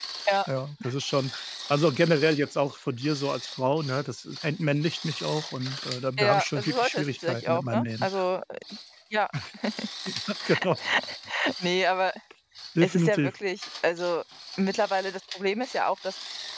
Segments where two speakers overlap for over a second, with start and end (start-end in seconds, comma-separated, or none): 6.2-8.1